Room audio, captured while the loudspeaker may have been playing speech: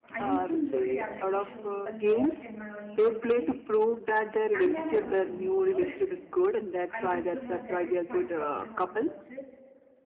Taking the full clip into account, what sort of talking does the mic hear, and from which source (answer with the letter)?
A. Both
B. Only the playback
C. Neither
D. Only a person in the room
A